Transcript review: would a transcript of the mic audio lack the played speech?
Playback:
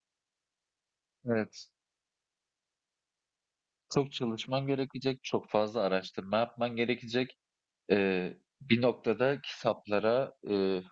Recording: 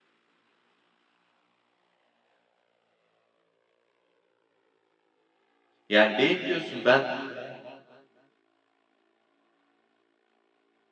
Yes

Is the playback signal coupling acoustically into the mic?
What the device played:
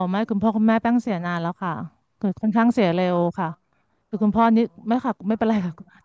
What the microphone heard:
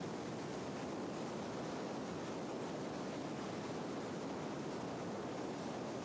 No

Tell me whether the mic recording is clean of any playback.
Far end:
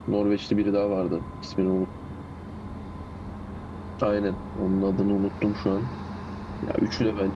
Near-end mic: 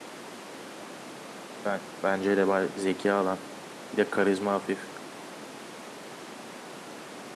Yes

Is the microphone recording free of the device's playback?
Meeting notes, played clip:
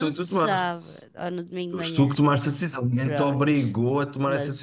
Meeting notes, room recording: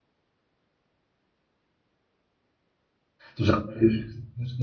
Yes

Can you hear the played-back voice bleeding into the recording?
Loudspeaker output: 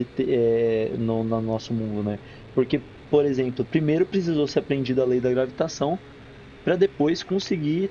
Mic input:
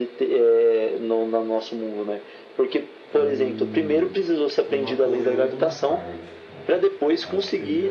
Yes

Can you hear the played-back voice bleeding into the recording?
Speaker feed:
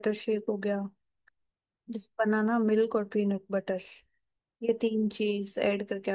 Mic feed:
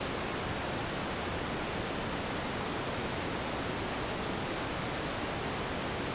No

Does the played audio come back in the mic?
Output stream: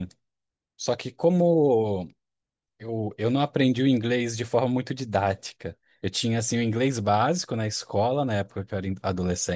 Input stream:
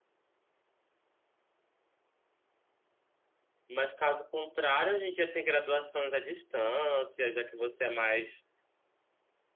No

